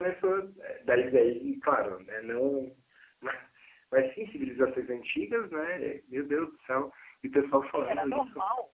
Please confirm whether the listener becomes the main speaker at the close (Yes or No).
Yes